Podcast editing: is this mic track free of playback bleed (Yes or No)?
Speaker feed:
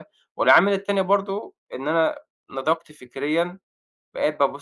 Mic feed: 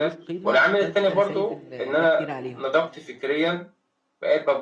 No